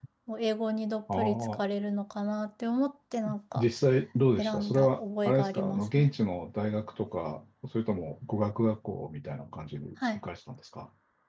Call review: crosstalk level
present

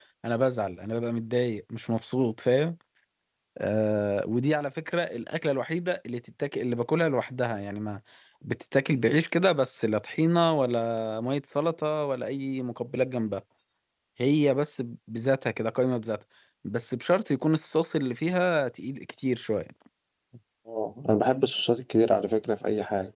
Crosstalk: none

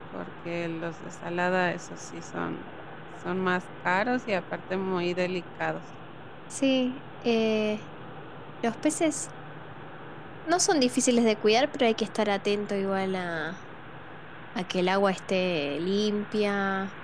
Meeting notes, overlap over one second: none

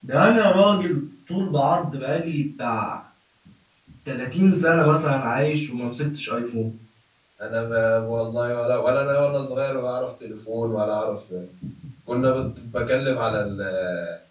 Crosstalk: none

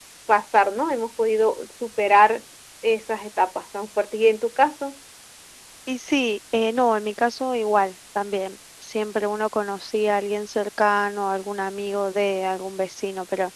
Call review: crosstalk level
none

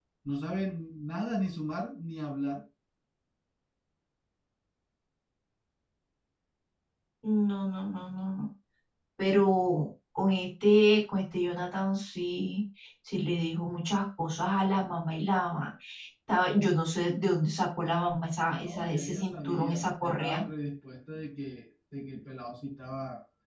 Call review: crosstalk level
present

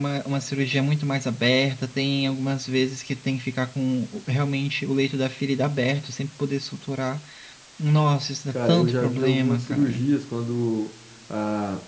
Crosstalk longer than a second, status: present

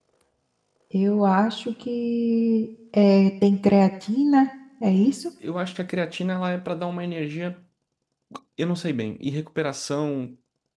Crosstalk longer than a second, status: none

